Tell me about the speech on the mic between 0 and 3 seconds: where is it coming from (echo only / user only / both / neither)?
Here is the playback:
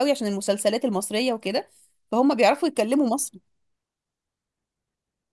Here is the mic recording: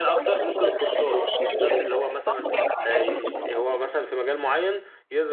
both